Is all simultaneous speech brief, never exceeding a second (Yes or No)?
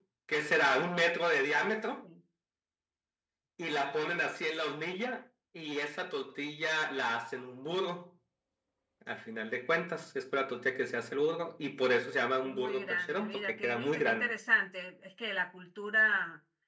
No